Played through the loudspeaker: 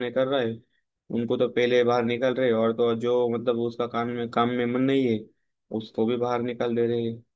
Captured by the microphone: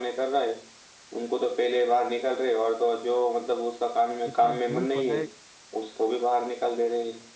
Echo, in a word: present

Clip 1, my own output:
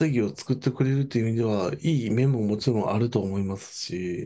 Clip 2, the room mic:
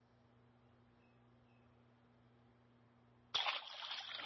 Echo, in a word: none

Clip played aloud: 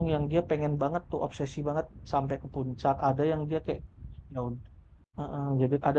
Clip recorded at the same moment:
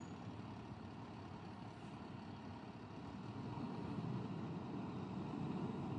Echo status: none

